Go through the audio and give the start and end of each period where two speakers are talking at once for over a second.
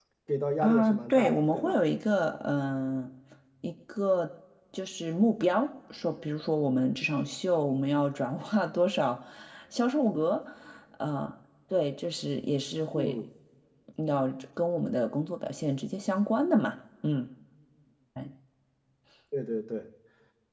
0.6-1.8

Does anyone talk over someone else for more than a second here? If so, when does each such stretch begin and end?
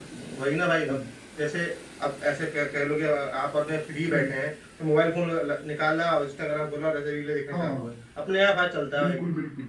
none

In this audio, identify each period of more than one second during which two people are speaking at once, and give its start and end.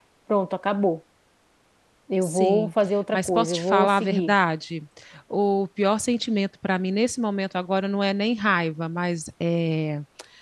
3.1-4.3

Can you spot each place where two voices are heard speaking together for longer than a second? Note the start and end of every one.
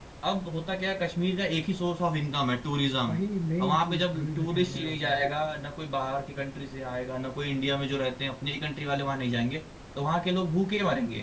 3.6-5.2

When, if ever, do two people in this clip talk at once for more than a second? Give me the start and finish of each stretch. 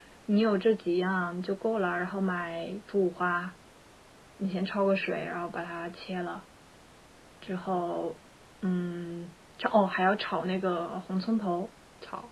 none

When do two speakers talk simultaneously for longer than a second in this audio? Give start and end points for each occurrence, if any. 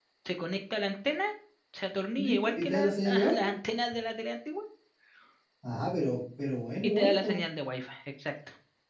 2.2-3.5

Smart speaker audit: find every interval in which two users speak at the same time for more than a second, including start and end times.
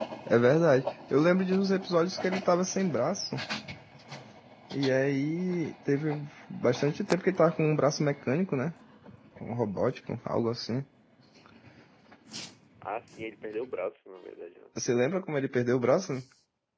none

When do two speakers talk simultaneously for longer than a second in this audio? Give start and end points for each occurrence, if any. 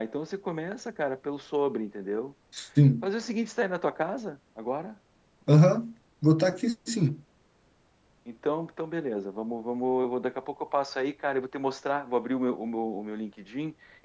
none

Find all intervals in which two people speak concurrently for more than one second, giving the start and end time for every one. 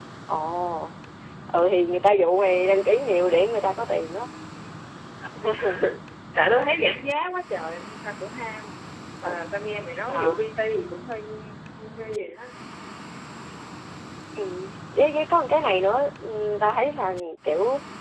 none

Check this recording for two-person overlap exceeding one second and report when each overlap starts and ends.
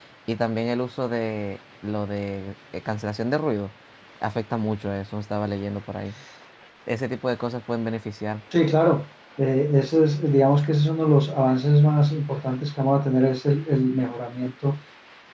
none

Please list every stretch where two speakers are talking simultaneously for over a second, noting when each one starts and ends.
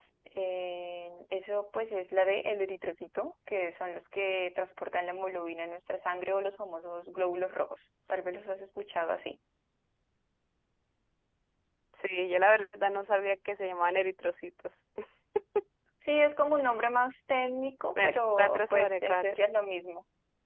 18.0-19.2

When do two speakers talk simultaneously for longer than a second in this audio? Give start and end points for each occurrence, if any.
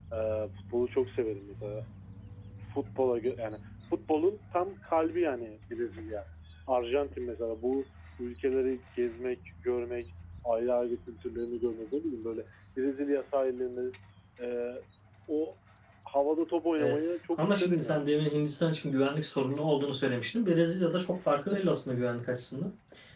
16.8-18.1

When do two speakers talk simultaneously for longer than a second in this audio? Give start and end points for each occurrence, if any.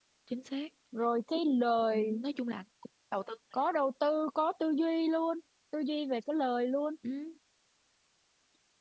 none

